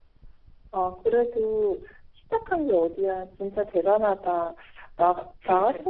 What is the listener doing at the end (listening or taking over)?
listening